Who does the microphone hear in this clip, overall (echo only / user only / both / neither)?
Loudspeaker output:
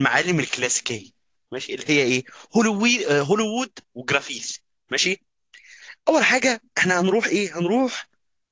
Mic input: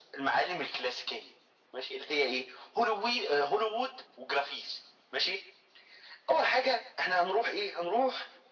echo only